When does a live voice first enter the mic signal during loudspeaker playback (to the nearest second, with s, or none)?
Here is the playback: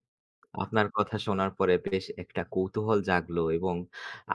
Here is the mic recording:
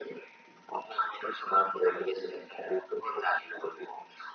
none